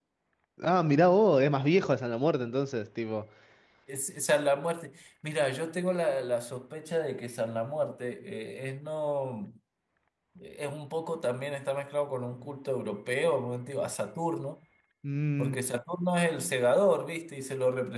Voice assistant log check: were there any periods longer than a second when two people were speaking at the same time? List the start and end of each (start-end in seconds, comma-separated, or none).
none